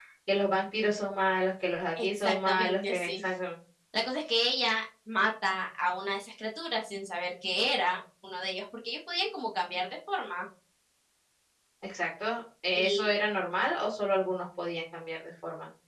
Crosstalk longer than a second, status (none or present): present